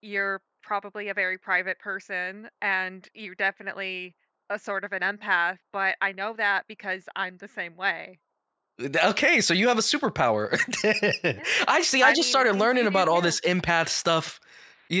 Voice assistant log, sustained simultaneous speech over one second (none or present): present